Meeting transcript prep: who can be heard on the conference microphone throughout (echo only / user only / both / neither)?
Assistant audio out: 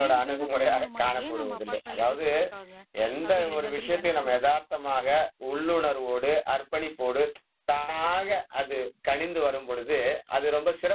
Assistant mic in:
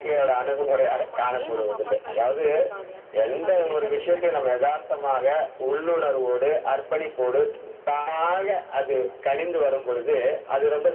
echo only